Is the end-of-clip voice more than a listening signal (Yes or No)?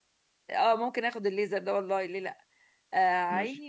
No